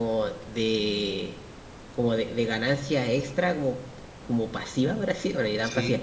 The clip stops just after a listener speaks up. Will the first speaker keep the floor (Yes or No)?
Yes